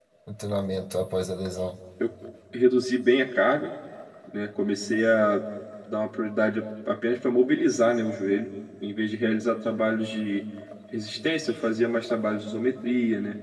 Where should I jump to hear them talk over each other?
none

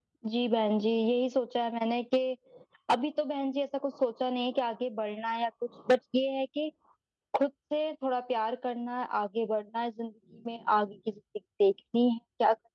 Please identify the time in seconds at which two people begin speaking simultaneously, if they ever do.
none

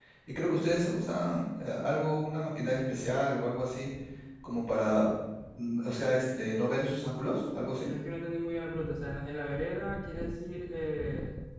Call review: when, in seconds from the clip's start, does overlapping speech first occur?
none

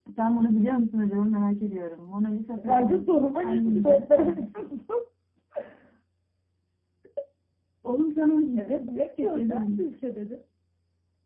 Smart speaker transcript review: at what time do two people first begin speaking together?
2.7 s

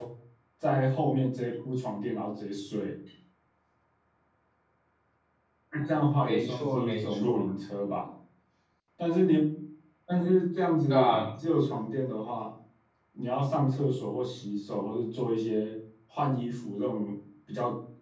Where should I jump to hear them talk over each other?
6.2 s

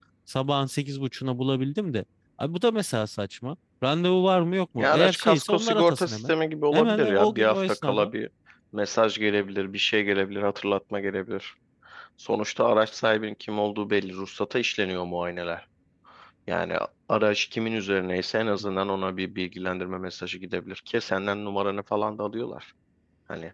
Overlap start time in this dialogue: 4.8 s

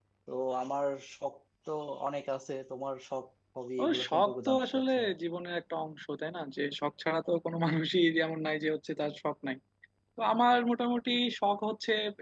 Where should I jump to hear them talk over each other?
3.8 s

